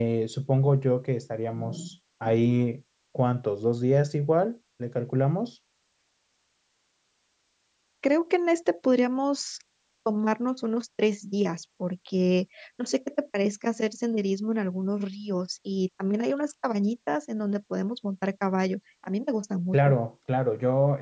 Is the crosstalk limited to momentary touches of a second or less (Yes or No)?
Yes